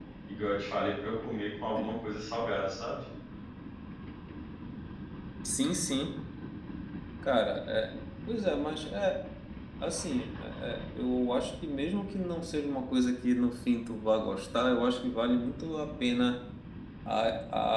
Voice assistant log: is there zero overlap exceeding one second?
Yes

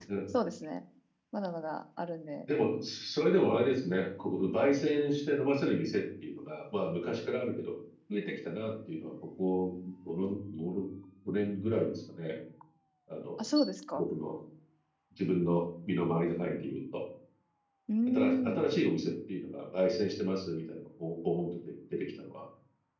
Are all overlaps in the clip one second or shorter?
Yes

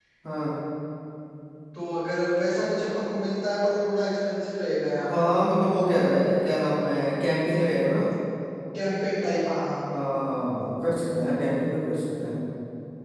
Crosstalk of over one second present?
No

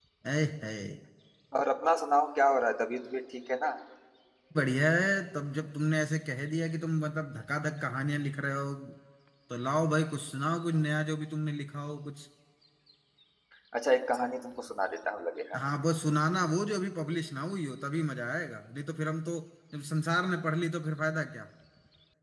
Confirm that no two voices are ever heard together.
Yes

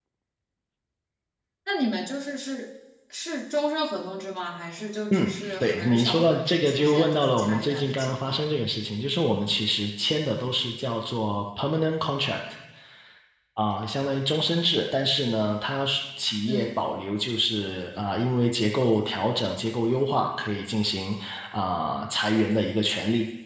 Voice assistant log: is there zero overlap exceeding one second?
No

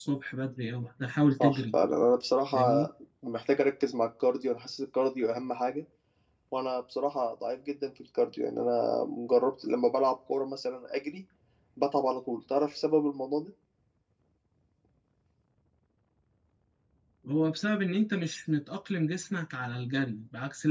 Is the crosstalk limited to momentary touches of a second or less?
Yes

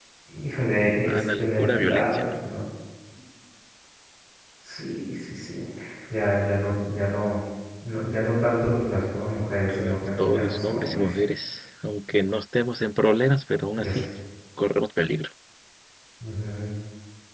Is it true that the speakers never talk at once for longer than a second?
No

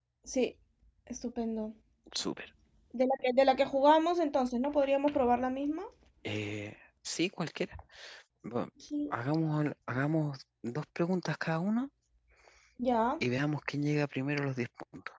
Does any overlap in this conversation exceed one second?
No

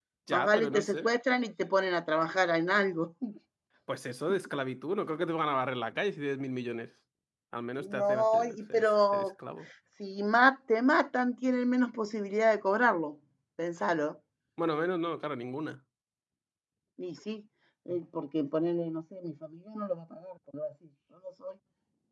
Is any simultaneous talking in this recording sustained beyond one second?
Yes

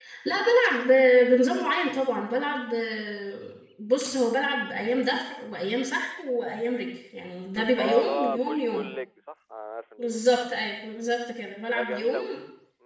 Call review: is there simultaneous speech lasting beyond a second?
Yes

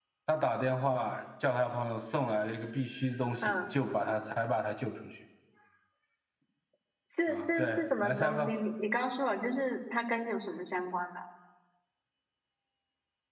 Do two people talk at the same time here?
Yes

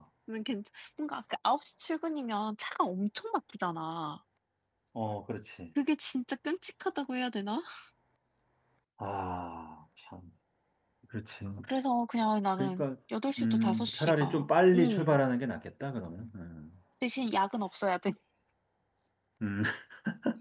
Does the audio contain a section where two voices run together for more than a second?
Yes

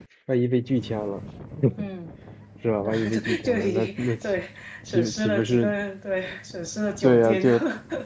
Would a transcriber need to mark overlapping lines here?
Yes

